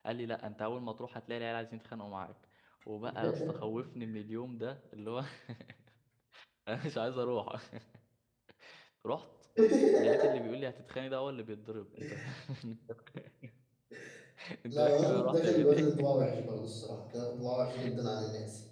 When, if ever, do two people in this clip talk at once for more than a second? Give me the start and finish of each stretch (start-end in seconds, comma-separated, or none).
14.7-16.1